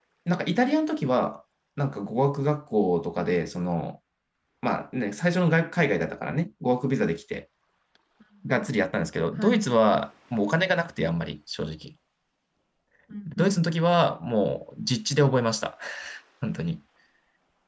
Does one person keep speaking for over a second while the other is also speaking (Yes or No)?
No